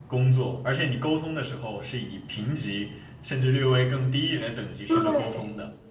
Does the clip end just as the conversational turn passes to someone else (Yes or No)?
Yes